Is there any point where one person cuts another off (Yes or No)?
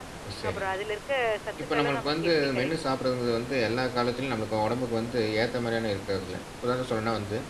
Yes